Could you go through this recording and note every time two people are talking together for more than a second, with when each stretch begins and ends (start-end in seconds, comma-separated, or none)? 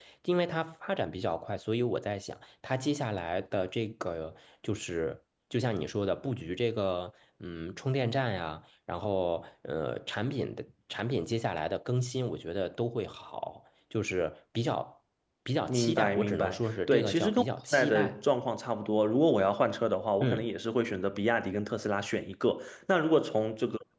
15.7-18.2